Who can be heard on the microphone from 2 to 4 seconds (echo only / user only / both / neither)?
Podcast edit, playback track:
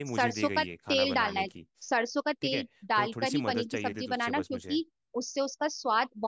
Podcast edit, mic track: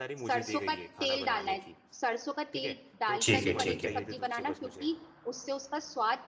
both